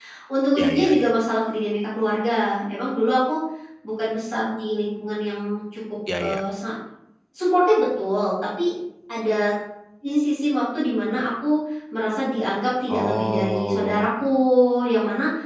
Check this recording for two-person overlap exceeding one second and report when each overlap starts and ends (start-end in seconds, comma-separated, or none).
12.9-14.1